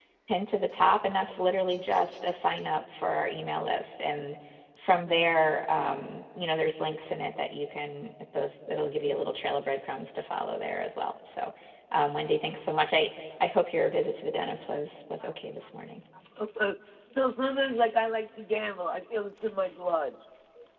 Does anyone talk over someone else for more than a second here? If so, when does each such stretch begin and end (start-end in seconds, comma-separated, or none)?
none